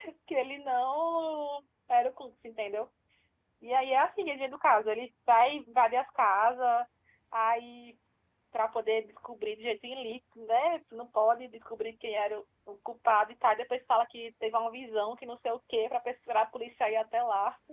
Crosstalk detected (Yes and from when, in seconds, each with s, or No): No